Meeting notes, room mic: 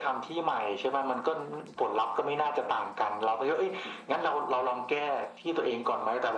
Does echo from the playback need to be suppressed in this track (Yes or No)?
Yes